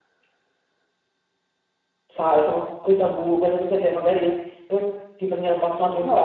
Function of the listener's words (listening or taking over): taking over